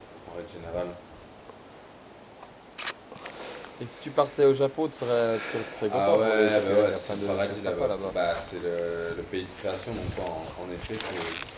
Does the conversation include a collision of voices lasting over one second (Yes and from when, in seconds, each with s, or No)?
Yes, from 5.8 s